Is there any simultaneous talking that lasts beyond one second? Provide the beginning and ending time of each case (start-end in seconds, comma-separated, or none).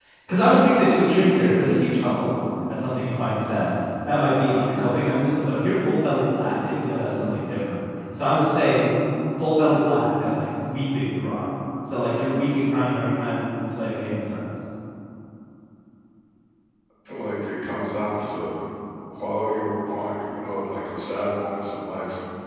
none